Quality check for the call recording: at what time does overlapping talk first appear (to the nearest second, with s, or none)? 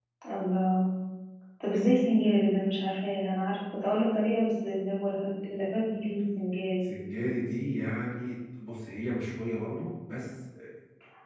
none